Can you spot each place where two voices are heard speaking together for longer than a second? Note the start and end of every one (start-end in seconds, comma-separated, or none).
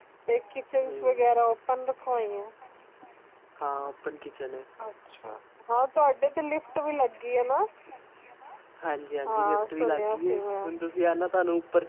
9.3-10.7